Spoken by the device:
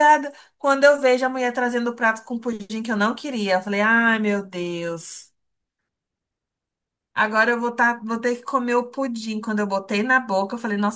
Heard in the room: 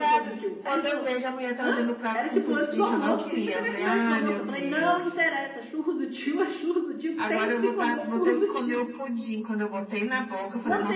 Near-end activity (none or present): present